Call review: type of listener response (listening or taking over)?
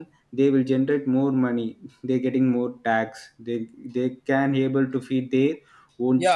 taking over